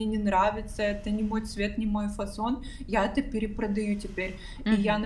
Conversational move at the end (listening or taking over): listening